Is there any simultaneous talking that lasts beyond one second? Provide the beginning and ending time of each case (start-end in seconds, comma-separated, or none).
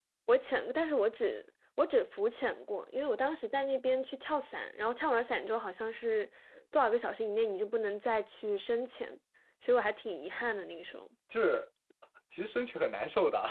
none